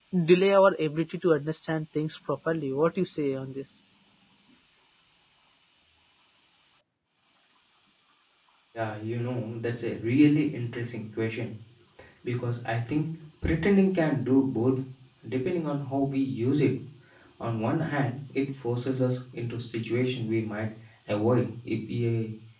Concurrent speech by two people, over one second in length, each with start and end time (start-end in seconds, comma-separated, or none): none